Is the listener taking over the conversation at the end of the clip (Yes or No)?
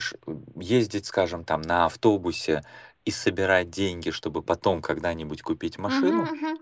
No